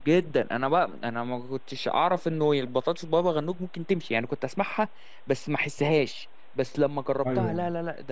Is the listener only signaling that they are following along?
Yes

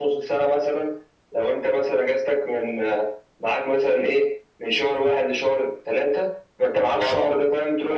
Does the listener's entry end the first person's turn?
No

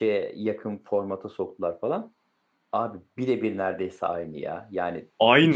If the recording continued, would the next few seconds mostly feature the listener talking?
No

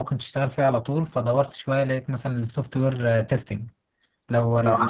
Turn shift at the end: No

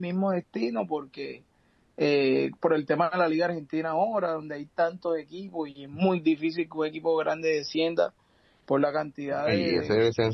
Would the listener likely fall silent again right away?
No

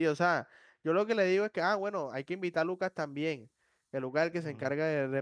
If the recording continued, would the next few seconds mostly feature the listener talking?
No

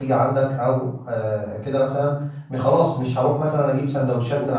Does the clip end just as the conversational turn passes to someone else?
No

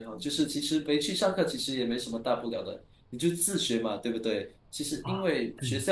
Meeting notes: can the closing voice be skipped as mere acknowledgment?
Yes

